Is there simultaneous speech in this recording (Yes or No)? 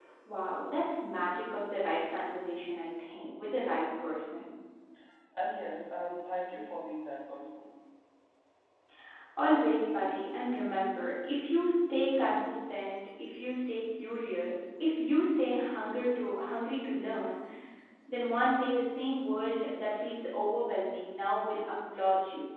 No